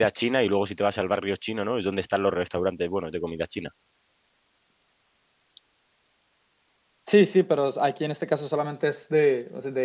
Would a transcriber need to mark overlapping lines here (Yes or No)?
No